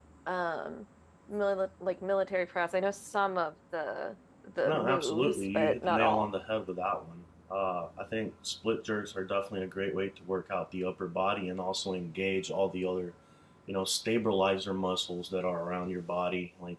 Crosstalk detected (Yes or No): Yes